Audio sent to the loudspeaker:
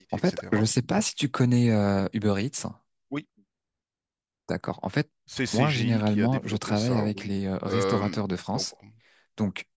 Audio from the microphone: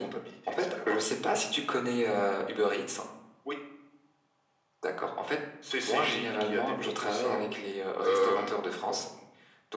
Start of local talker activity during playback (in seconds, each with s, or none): none